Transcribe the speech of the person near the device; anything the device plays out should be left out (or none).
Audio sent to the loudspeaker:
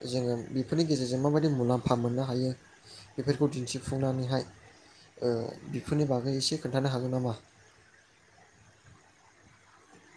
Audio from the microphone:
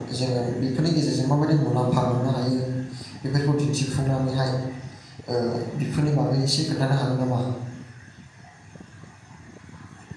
none